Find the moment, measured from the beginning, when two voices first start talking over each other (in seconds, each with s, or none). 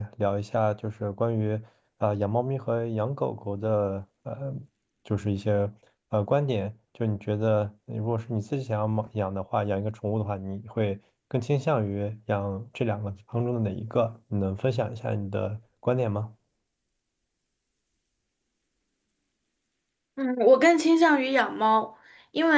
none